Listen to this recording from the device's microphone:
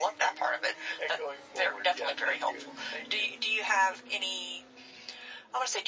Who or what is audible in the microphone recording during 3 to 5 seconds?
echo only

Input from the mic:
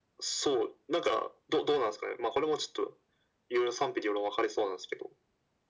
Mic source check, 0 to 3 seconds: echo only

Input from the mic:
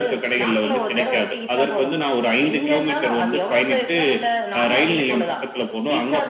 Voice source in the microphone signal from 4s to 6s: echo only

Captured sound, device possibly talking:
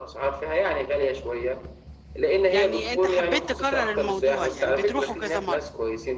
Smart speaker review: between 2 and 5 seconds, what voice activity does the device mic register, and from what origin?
both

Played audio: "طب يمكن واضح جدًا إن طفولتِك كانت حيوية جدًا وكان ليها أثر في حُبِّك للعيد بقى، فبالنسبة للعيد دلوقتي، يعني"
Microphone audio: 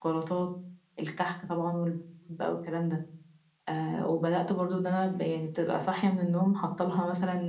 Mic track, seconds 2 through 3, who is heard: user only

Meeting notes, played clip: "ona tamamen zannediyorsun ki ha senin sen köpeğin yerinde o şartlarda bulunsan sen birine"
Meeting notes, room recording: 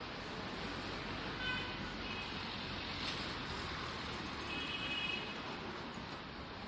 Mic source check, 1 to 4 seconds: neither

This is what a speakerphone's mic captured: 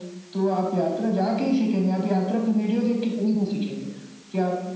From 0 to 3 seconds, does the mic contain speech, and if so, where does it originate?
echo only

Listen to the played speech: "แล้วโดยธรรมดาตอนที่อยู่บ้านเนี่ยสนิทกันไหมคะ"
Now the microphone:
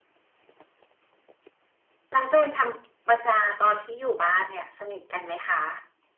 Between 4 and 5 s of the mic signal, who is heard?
echo only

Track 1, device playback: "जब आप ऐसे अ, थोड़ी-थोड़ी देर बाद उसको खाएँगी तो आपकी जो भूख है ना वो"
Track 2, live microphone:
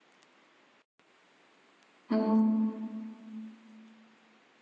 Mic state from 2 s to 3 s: user only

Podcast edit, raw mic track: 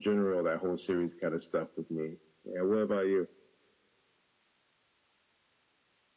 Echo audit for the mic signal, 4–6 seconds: neither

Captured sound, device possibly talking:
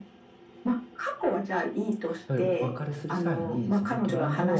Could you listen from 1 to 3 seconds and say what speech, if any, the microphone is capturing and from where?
both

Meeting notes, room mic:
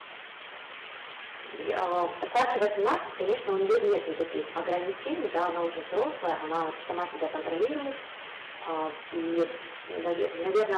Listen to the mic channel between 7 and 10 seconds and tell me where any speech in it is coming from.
user only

